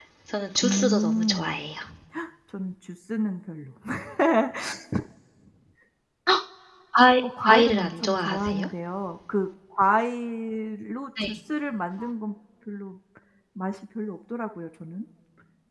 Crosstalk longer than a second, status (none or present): present